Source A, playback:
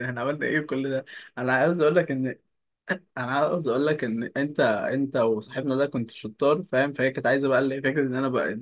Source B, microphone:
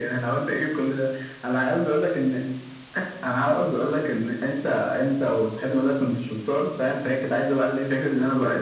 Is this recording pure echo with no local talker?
Yes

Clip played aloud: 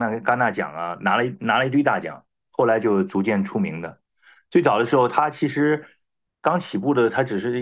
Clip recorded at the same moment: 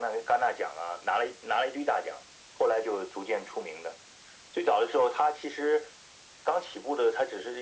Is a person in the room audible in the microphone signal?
No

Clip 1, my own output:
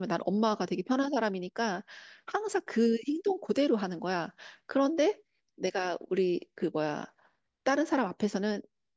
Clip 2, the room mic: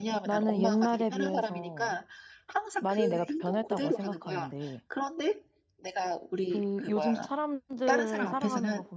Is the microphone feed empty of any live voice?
No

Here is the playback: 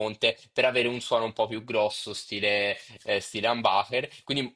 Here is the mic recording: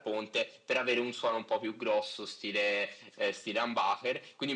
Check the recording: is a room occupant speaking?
No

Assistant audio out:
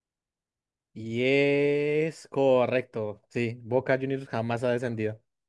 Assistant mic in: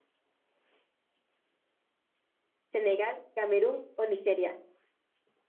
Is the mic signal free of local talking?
No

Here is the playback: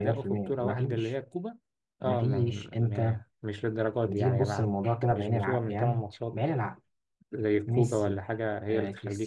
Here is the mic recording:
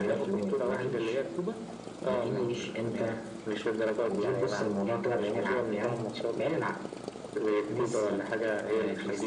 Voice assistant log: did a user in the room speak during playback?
No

